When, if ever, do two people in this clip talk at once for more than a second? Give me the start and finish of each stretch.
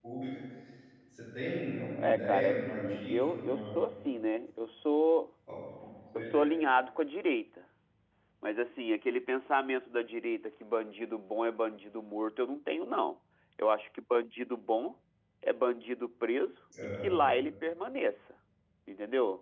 2.0-3.8

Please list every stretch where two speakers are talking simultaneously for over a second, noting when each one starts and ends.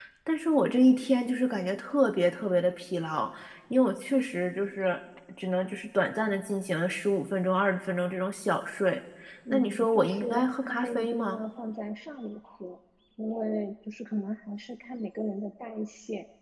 9.5-11.4

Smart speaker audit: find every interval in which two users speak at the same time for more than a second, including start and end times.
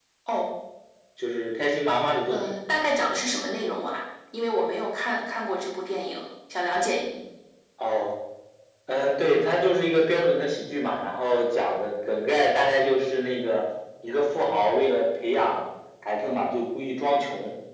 none

